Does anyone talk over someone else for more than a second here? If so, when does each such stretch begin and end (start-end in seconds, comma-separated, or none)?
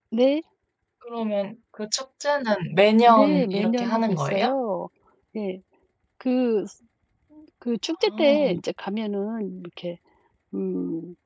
3.1-4.5